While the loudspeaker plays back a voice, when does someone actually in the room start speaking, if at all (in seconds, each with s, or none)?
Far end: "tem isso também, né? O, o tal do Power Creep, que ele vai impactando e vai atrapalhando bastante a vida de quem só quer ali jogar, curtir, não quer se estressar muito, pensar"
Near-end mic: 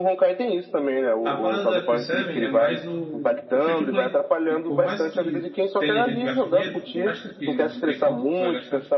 1.2 s